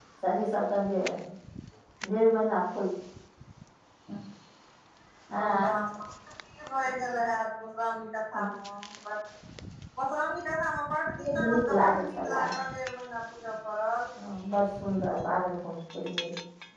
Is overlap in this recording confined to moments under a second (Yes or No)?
No